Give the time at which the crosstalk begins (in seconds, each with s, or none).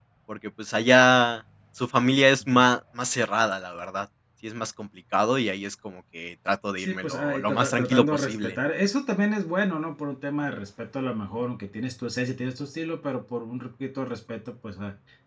6.8 s